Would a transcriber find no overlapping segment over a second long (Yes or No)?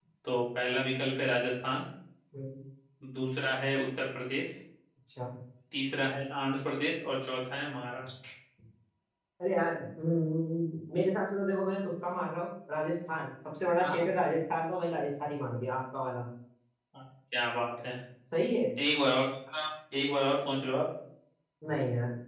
Yes